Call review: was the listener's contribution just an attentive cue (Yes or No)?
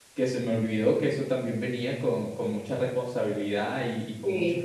Yes